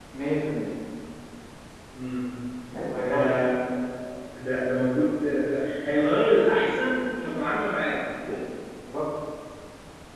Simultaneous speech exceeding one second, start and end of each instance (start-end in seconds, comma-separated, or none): none